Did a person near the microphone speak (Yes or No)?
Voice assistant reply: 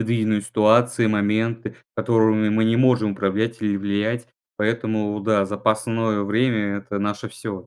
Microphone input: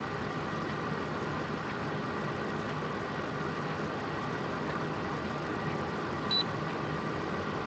No